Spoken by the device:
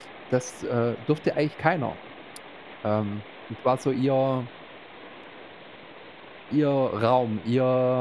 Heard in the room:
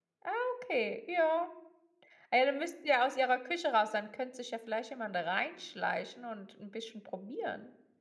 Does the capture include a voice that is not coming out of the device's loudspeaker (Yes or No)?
Yes